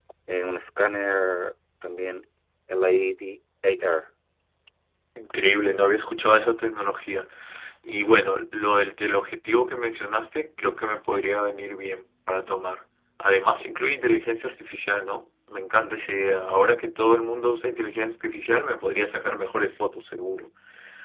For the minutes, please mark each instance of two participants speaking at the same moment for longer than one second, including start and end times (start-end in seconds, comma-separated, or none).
none